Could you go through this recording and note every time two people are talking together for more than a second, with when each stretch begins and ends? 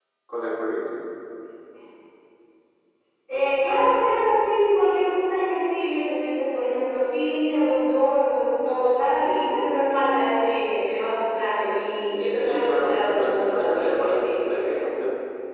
12.4-14.8

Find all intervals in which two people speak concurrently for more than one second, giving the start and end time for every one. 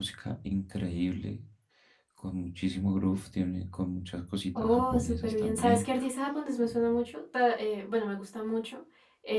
4.6-5.8

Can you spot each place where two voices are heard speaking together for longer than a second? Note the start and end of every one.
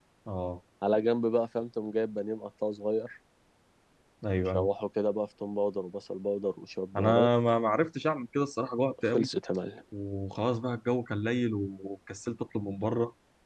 none

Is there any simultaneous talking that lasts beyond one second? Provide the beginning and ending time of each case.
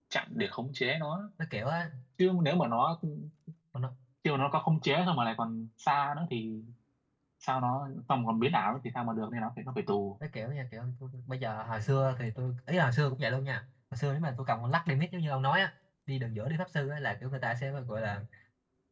none

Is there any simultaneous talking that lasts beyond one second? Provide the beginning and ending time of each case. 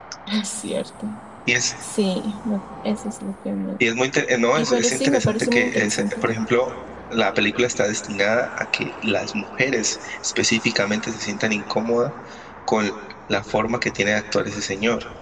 4.5-6.3

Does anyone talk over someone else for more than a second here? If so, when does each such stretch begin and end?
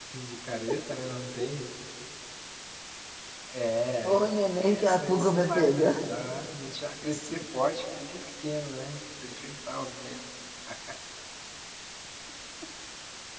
4.0-5.9

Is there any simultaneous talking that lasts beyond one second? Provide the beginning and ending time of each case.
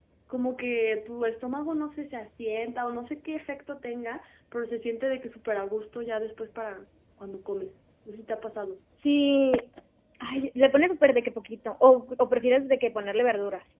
none

